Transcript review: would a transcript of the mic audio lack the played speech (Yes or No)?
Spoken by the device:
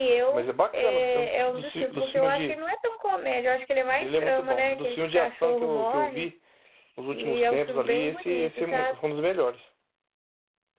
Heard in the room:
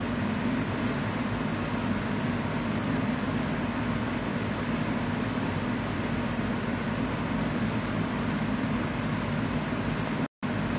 Yes